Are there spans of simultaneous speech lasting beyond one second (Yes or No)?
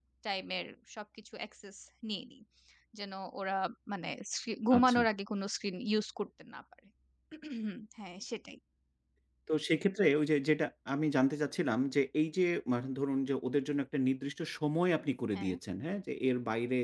No